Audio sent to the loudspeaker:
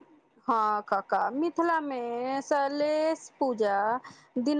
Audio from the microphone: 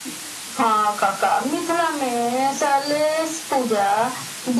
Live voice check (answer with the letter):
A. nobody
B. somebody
A